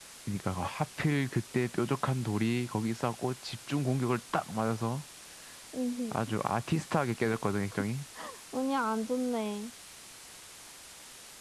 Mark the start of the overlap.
none

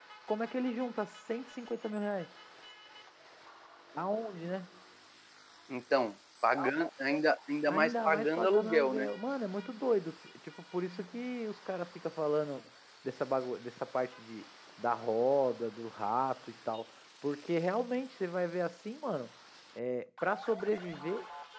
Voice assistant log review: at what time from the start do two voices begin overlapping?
7.7 s

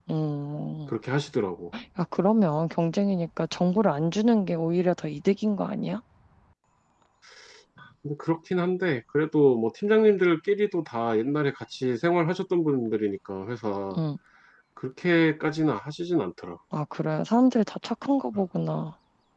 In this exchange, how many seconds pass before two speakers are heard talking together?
none

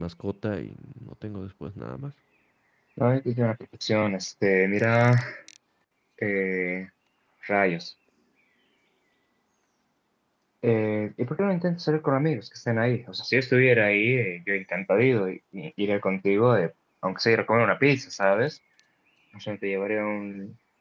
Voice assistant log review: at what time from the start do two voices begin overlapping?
none

